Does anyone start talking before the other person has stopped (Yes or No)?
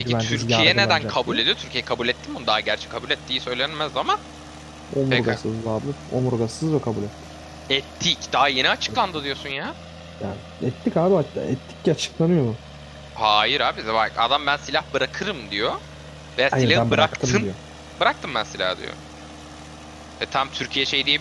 Yes